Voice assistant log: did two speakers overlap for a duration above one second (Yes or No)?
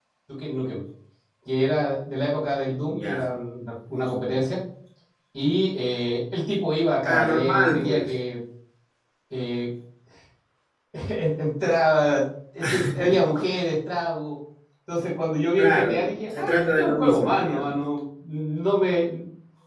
Yes